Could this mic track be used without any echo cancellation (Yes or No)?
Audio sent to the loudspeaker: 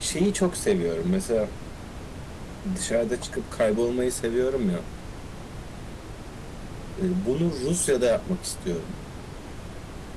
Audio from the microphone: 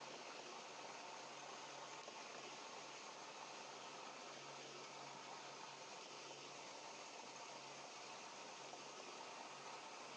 Yes